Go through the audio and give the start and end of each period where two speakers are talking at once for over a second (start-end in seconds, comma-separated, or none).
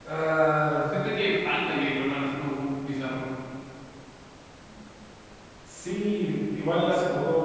none